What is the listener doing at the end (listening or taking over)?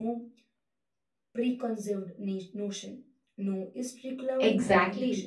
taking over